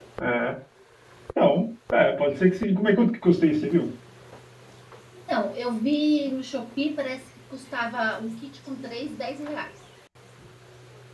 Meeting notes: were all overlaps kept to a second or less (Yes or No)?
Yes